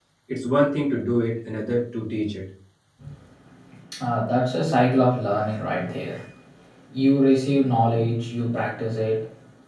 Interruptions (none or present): none